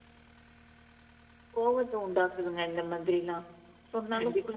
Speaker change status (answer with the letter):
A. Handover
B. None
A